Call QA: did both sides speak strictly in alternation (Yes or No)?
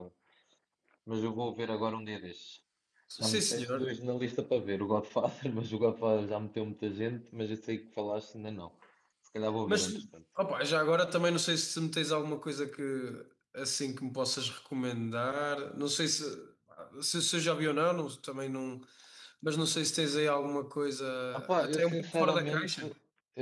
No